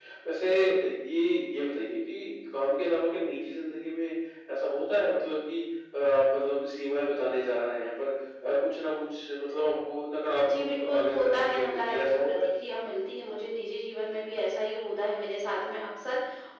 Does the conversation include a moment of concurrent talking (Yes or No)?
Yes